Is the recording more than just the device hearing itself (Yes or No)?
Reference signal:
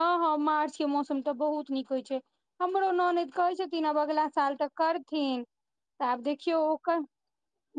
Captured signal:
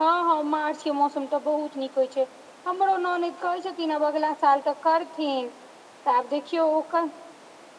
No